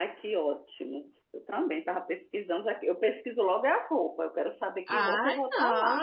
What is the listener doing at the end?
taking over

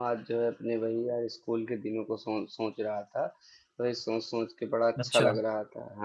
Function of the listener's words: listening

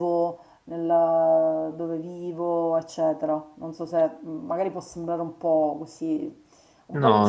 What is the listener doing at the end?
listening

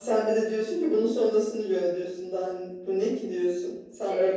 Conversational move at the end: taking over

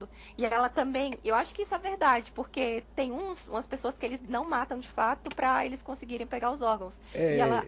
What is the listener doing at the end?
listening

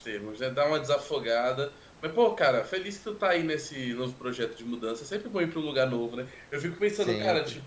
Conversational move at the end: listening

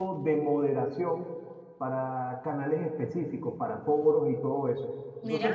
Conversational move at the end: listening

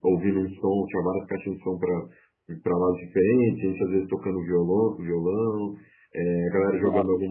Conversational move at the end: listening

